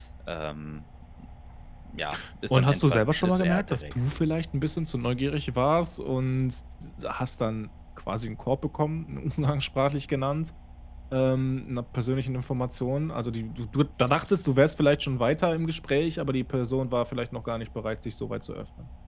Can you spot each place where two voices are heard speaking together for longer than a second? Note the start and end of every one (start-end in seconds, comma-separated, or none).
2.5-4.0